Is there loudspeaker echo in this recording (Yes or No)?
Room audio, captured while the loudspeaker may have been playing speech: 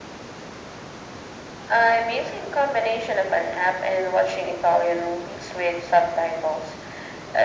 Yes